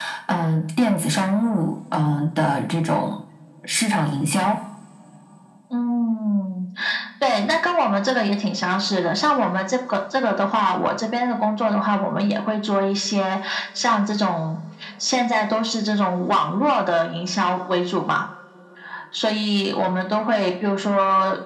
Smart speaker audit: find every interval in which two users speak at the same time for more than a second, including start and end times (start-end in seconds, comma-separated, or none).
none